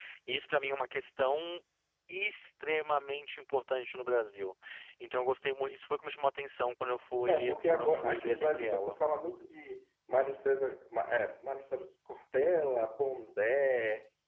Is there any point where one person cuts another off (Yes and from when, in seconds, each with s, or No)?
Yes, from 7.3 s